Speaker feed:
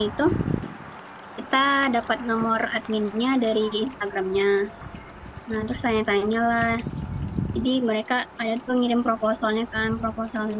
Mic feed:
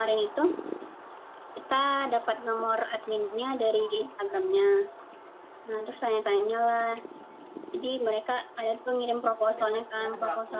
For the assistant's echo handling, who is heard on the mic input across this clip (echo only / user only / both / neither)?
both